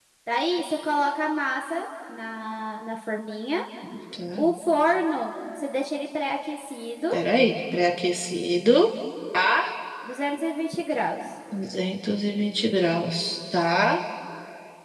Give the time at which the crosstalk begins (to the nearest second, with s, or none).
none